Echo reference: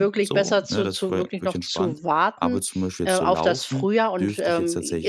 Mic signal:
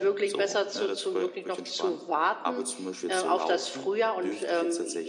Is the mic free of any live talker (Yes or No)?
Yes